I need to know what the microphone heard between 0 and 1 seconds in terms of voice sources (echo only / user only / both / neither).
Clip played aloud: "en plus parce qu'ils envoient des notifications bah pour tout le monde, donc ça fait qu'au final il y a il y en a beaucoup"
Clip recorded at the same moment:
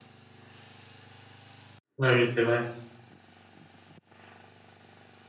neither